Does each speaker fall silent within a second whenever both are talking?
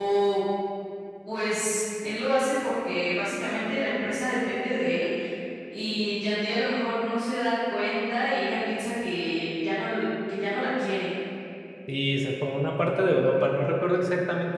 Yes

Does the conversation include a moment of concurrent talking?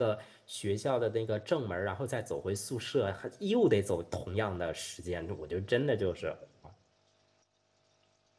No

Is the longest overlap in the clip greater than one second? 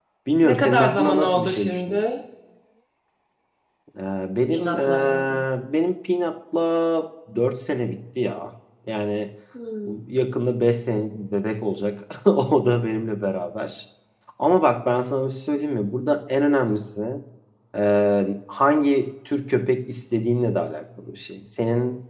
Yes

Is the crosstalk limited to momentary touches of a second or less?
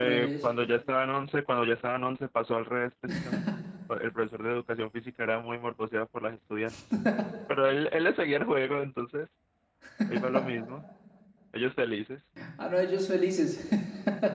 Yes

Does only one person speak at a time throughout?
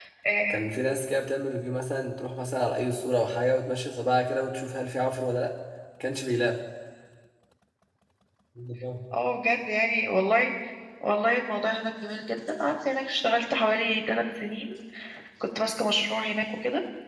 Yes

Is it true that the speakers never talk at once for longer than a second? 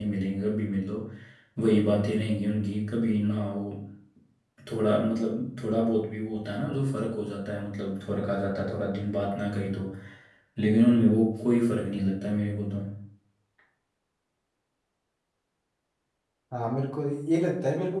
Yes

